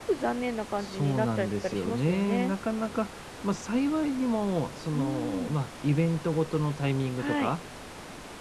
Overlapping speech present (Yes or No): Yes